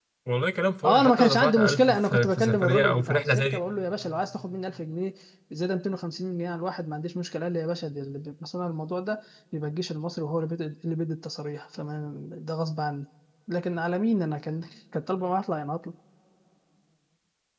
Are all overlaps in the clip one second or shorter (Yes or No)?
No